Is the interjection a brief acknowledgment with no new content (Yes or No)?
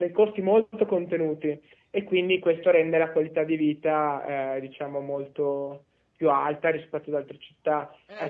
No